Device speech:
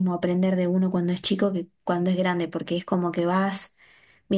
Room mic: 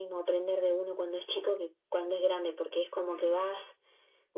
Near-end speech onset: 3 s

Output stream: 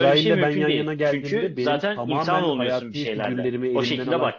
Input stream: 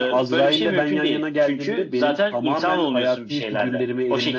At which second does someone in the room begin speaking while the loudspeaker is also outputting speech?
none

